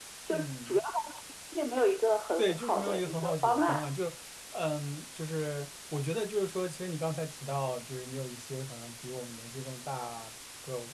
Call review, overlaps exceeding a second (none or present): present